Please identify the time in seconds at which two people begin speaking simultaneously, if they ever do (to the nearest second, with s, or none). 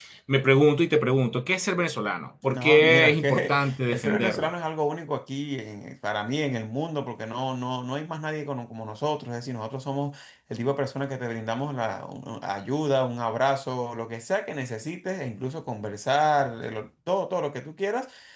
2 s